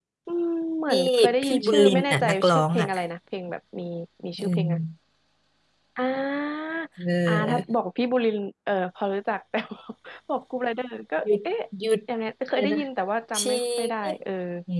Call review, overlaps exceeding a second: present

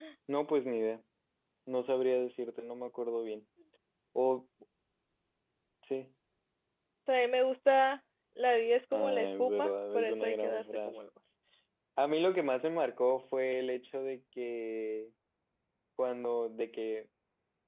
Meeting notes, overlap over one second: present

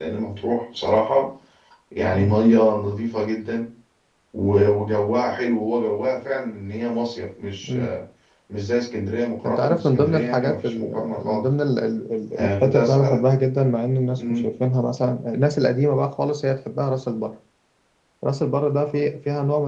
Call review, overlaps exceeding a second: present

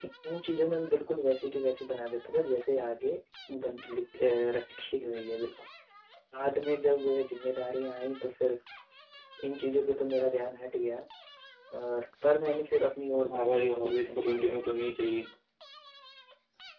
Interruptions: present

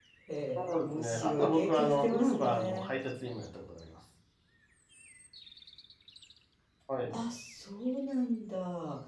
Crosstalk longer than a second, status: present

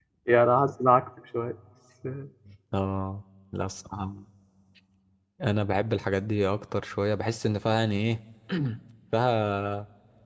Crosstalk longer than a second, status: none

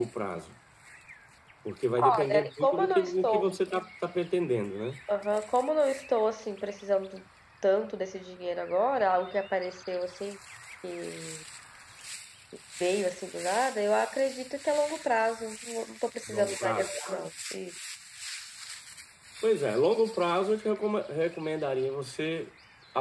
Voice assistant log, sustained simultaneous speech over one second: present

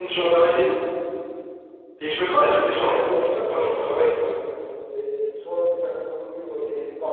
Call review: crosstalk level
present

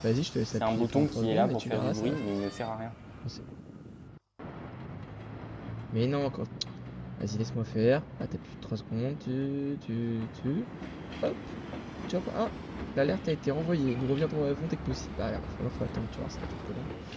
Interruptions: present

